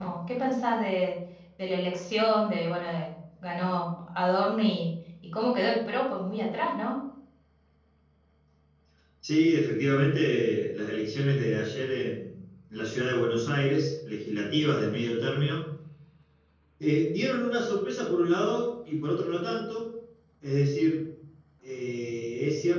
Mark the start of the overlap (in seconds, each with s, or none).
none